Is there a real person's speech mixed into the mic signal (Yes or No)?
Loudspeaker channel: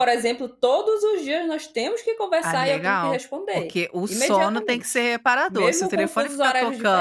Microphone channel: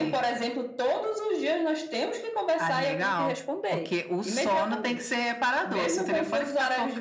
No